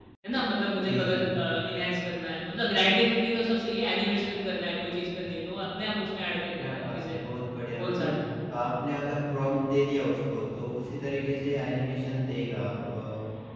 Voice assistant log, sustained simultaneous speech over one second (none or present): none